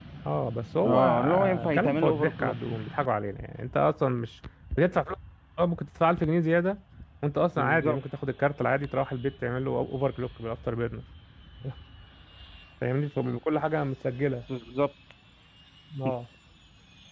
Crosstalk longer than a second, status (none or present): present